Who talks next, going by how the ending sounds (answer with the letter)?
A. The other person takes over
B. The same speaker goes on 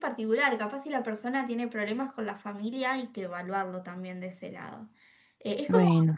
B